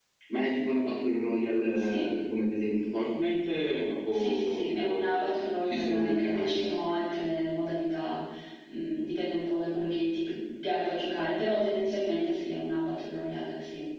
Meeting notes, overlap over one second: present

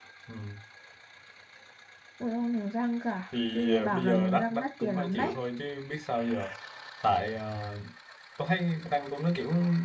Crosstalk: present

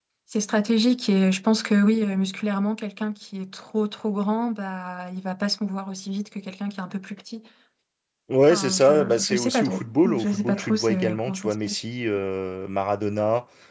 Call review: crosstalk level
present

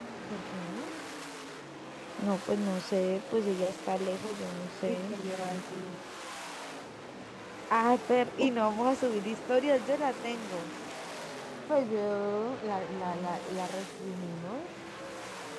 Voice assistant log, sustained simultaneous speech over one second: none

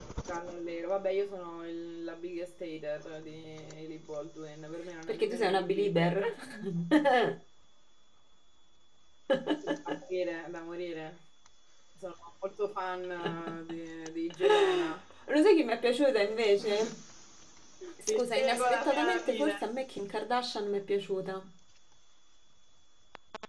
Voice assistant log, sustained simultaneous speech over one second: present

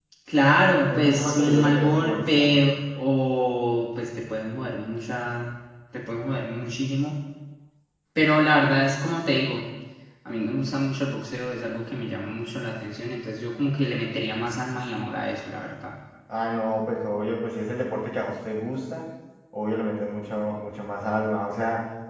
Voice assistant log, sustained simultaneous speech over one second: present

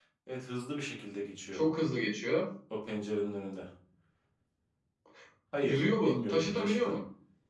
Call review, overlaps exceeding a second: present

